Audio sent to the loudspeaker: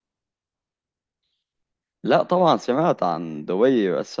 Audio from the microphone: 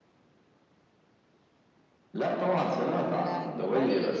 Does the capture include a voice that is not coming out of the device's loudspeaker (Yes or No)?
Yes